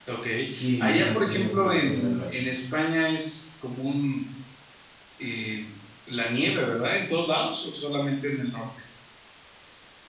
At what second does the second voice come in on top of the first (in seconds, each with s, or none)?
0.8 s